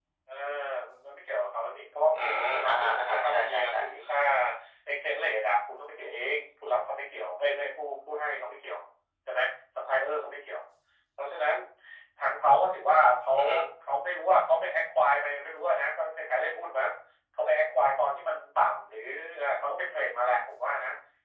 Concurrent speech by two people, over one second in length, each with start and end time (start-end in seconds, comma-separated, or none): 2.1-3.8